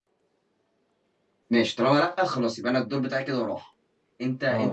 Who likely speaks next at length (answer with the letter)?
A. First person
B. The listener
B